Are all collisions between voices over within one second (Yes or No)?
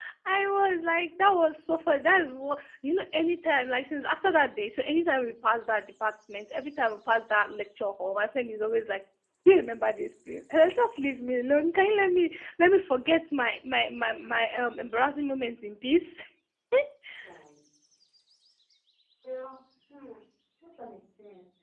Yes